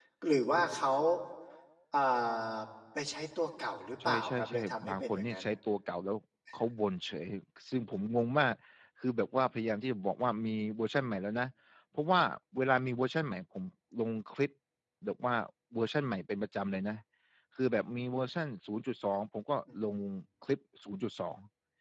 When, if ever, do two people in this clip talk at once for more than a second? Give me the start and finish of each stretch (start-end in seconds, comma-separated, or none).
4.0-5.5